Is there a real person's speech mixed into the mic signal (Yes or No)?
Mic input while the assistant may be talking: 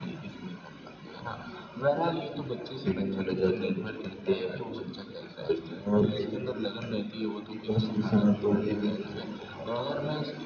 No